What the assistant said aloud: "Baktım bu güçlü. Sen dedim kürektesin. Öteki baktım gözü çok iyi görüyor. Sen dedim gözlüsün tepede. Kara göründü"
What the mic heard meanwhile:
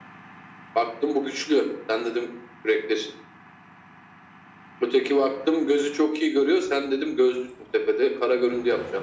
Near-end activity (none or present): none